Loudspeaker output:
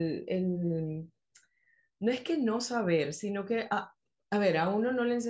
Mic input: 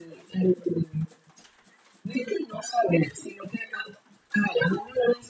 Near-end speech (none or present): none